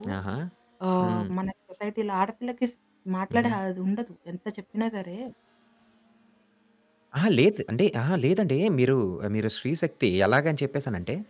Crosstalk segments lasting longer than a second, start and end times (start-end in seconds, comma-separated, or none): none